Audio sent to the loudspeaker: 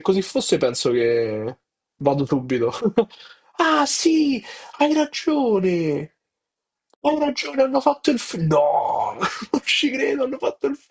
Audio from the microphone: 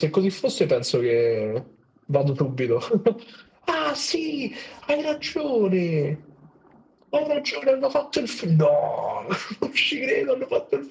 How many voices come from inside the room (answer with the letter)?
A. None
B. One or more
A